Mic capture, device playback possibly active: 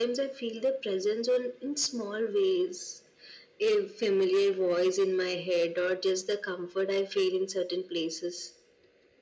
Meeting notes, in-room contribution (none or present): none